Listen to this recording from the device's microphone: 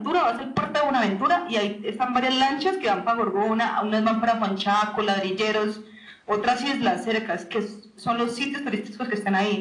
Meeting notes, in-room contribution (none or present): none